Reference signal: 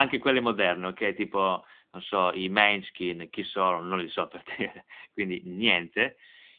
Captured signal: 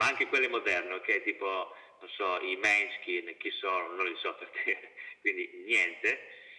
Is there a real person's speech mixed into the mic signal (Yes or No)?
No